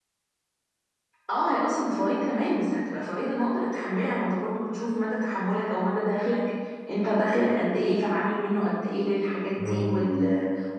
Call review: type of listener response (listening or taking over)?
listening